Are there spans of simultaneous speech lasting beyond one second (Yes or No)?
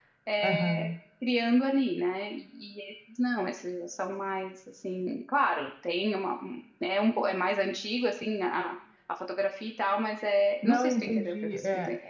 Yes